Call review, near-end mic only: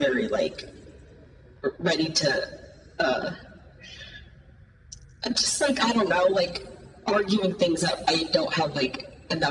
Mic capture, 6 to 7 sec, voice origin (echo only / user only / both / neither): echo only